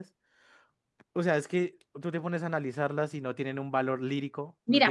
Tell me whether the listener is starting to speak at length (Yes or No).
Yes